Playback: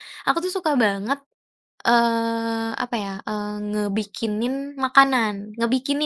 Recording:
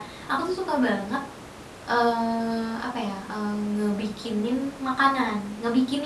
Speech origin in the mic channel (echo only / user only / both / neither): echo only